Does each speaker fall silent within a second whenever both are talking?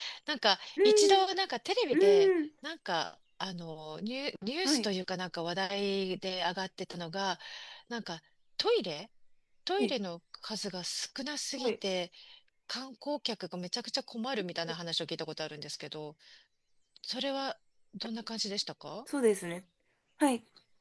Yes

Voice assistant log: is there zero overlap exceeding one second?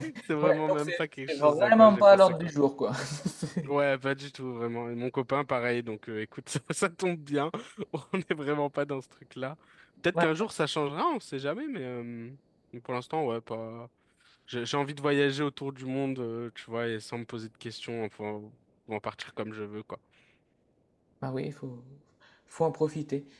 No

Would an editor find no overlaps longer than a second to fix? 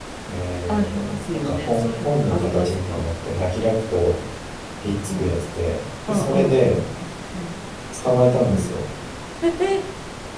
No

